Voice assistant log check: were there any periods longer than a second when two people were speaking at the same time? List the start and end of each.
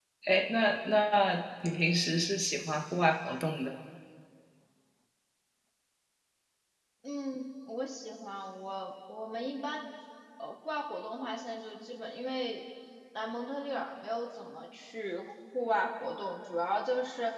none

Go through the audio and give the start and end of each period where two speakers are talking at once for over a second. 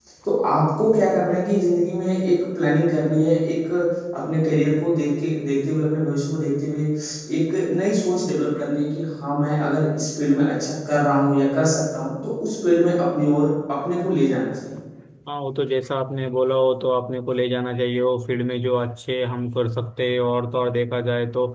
none

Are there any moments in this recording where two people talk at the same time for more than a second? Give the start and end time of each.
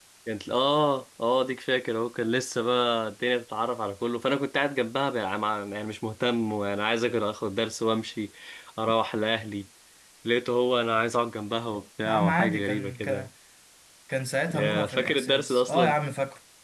12.0-13.3, 14.5-15.9

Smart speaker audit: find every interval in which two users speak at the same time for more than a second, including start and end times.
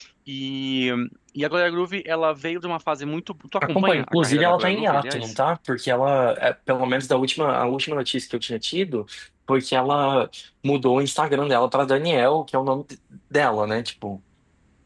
3.8-5.3

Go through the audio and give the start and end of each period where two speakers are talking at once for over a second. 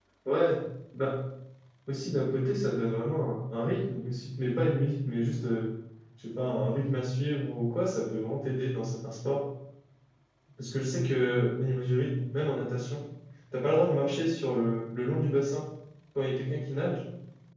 none

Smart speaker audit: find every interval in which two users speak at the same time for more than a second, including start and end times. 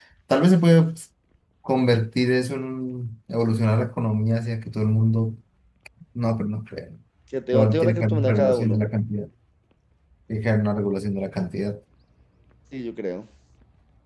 7.5-8.8

